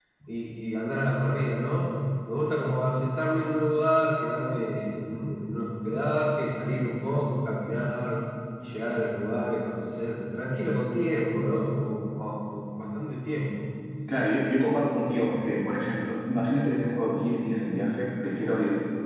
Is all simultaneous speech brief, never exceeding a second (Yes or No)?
Yes